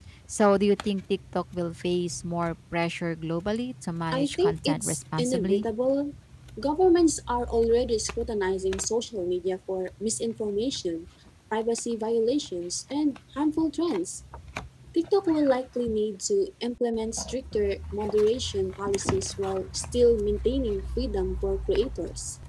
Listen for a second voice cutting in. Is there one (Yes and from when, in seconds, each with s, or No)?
Yes, from 4.1 s